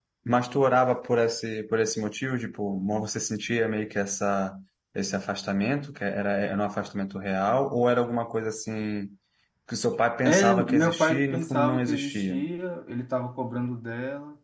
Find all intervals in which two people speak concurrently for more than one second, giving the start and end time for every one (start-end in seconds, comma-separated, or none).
10.2-12.4